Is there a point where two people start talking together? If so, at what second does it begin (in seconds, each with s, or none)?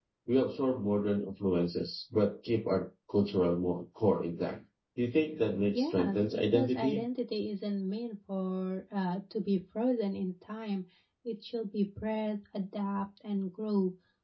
5.7 s